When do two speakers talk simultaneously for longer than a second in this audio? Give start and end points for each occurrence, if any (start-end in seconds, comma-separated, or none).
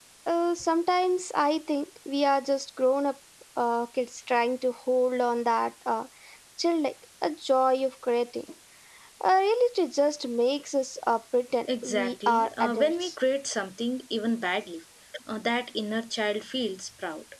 11.8-13.1